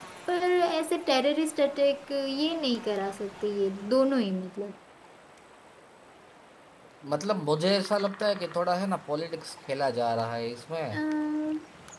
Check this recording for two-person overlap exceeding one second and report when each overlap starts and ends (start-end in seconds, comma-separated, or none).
none